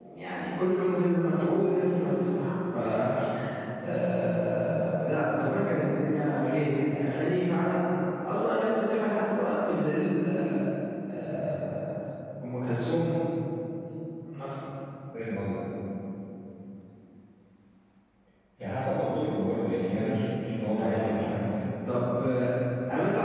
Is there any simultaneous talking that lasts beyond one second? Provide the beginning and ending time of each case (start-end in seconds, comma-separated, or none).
19.9-21.4